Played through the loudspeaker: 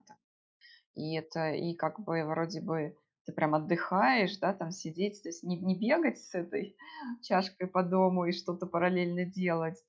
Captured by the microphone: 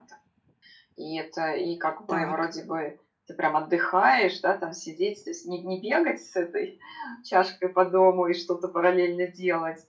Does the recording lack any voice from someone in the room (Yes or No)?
No